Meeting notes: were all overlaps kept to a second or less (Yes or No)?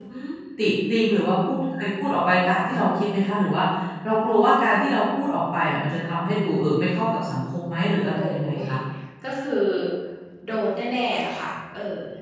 Yes